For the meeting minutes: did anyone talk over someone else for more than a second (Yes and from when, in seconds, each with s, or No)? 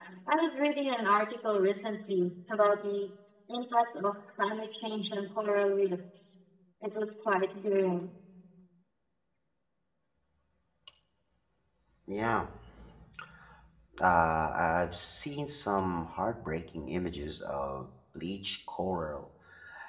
No